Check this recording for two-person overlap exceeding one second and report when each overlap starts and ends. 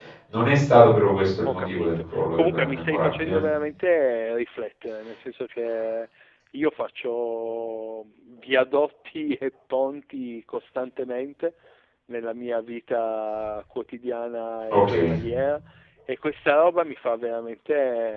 1.4-3.4

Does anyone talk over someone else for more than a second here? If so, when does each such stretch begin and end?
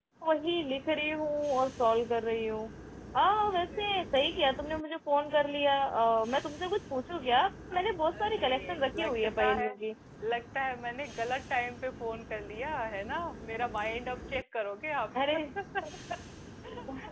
8.2-9.8

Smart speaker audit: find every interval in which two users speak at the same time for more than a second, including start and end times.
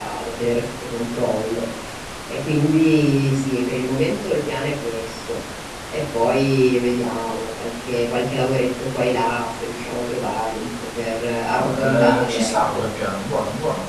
11.6-12.8

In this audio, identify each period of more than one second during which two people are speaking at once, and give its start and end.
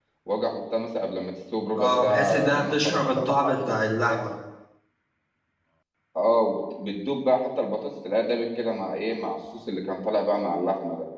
1.8-3.8

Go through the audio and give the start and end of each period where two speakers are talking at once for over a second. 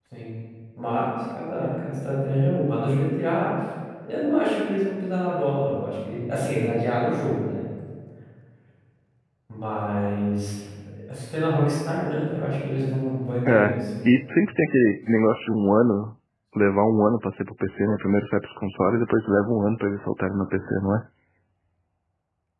none

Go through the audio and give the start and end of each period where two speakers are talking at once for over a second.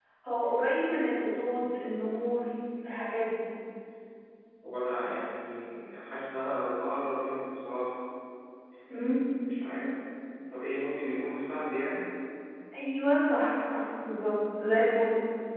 none

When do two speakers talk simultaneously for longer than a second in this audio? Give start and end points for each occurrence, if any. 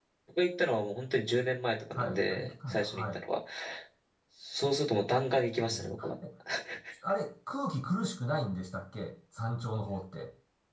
2.0-3.2

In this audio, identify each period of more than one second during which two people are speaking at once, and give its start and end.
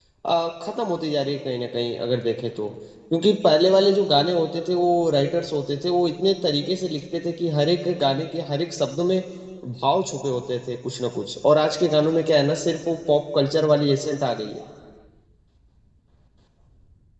none

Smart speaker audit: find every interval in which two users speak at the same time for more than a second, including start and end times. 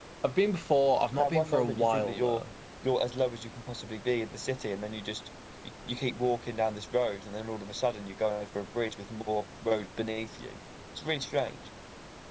1.2-2.4

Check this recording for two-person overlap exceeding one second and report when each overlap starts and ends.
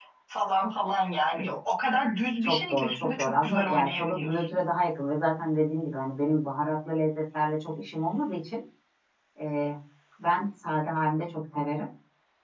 2.4-4.6

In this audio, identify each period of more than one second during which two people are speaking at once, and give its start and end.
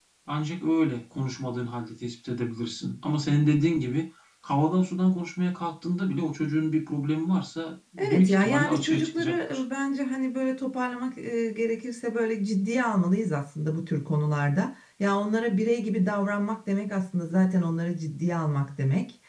8.0-9.6

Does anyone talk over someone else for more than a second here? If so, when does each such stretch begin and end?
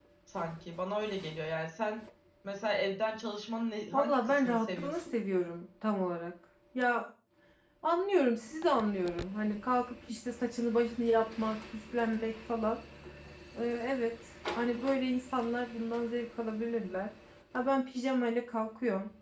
3.9-5.1

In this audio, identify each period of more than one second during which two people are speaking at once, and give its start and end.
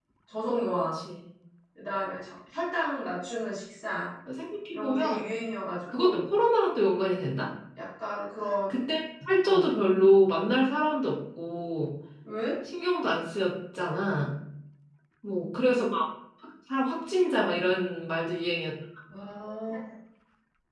none

